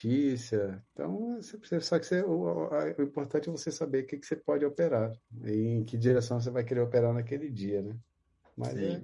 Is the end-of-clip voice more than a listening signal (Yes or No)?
Yes